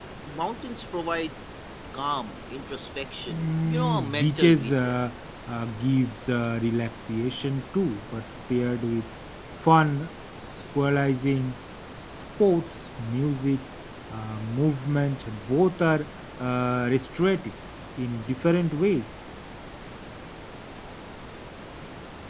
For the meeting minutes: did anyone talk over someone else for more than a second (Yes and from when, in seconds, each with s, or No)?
Yes, from 3.3 s